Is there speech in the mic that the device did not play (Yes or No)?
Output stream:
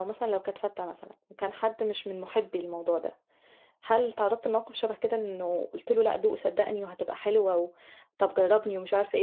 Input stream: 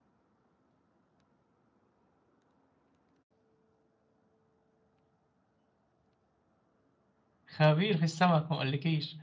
Yes